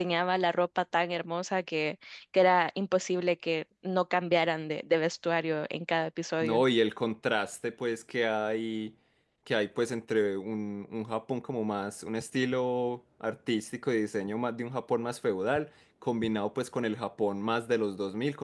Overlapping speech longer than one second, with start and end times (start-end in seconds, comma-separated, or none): none